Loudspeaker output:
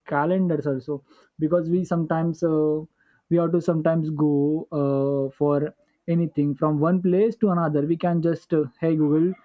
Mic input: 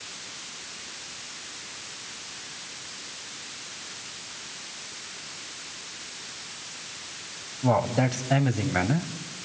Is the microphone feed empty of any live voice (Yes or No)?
No